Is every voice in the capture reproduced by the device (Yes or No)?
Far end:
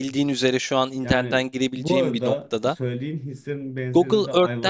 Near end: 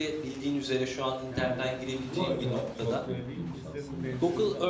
No